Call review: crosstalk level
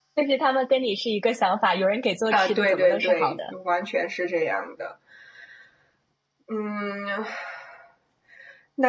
present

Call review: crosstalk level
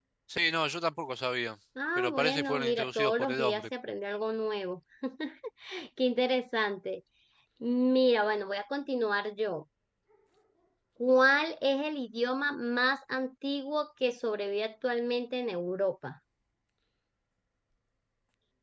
present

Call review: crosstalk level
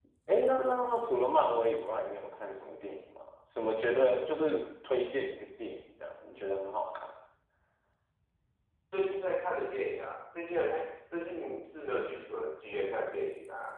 none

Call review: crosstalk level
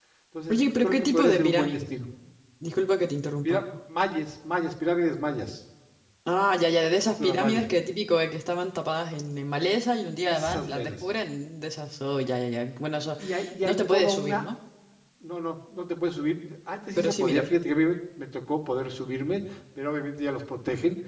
present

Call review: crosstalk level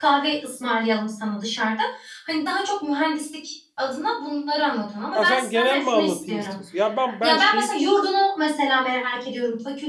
present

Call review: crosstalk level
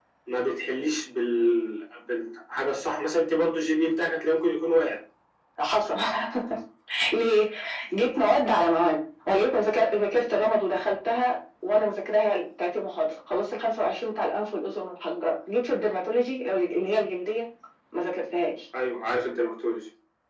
none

